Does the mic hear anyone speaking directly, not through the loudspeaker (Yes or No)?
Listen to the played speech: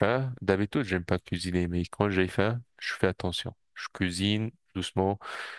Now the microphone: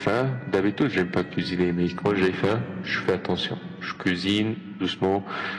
No